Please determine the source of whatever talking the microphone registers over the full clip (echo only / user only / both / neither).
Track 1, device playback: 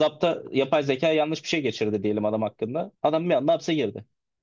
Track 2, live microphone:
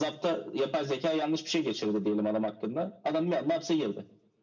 echo only